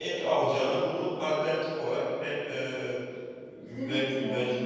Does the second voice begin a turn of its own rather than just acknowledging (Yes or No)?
Yes